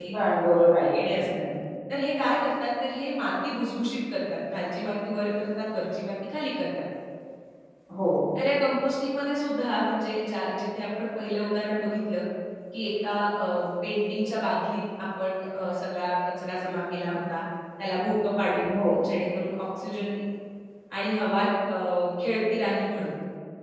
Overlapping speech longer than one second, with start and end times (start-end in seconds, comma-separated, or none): none